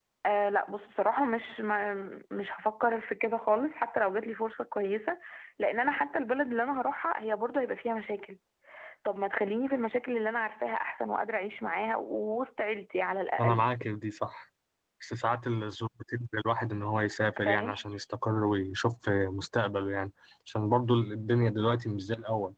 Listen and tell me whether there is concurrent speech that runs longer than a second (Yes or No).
No